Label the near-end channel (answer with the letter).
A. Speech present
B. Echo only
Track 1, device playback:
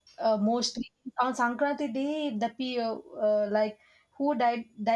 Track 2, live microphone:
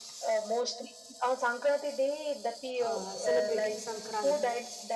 A